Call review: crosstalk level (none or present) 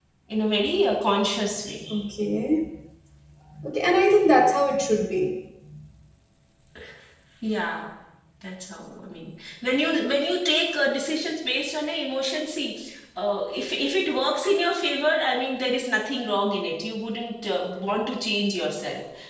none